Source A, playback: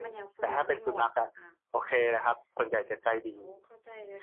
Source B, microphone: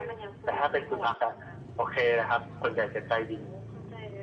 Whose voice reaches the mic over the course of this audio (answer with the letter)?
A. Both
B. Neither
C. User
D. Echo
D